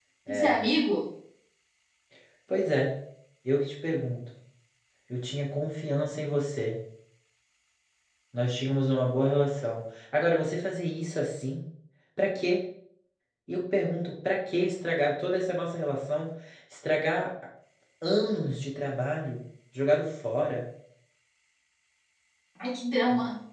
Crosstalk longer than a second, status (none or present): none